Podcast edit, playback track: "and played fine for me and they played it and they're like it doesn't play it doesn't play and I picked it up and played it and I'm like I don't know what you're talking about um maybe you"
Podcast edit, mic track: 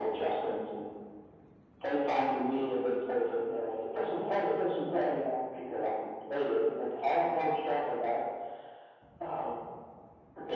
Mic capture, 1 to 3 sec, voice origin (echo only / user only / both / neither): echo only